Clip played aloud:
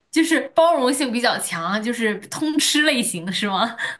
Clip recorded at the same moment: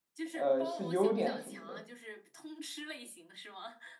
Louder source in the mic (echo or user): user